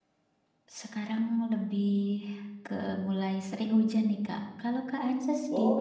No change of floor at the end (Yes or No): No